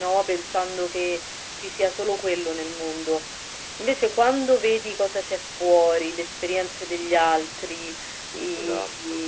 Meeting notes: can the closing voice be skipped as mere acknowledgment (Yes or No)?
Yes